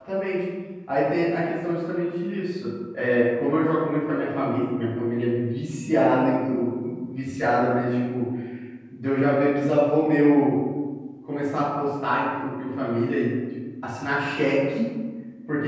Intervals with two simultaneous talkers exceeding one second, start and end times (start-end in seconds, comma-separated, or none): none